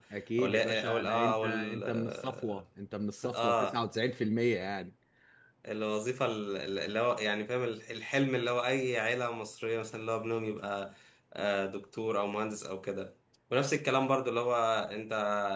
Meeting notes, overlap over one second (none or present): present